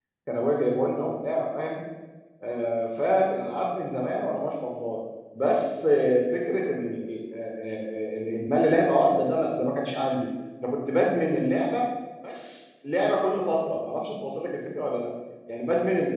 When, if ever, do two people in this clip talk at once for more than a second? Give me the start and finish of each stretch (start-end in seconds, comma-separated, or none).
none